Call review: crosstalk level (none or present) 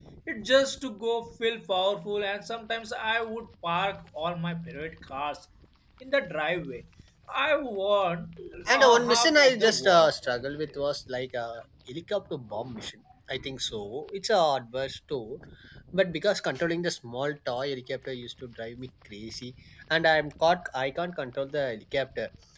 present